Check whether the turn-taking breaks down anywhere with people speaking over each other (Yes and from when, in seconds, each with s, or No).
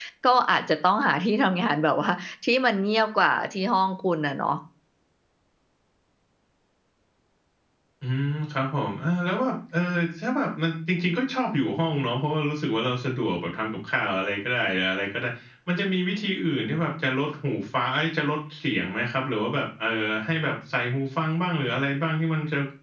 No